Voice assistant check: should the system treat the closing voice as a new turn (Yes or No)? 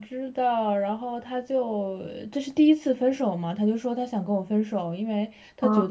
No